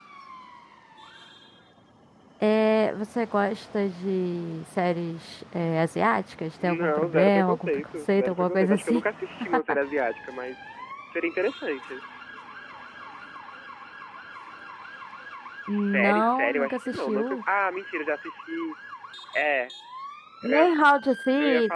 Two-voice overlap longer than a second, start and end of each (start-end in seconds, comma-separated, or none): 6.6-9.0, 15.7-17.4